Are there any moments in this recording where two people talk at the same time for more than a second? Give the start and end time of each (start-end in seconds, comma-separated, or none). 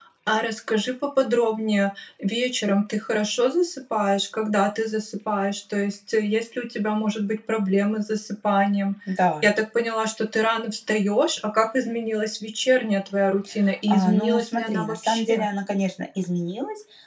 13.9-15.4